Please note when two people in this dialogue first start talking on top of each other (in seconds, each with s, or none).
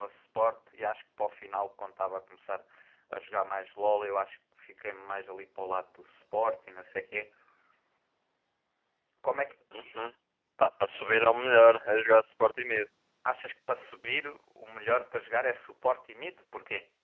none